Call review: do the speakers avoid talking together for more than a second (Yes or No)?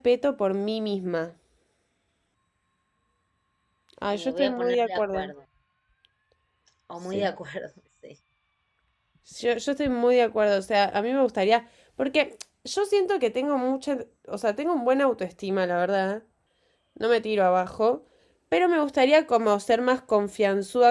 No